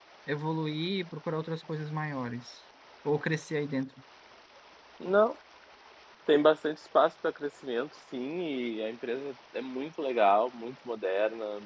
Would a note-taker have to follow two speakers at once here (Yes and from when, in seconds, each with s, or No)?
No